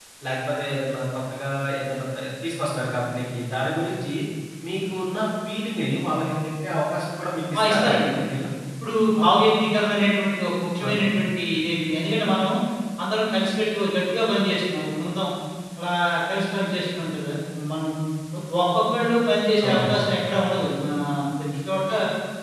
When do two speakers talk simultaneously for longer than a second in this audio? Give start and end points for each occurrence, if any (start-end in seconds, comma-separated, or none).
none